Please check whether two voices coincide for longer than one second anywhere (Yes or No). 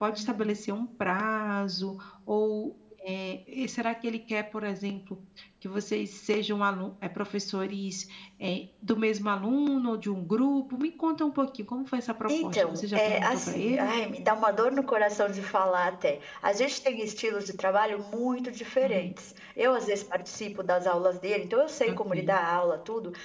Yes